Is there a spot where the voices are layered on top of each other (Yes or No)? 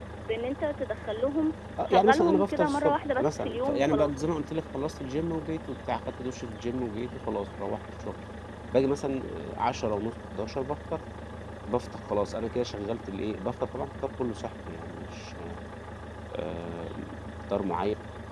Yes